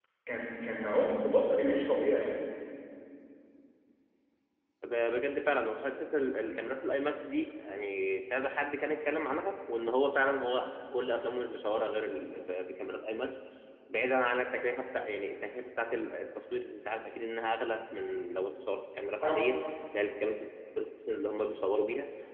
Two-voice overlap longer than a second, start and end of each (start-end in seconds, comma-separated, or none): none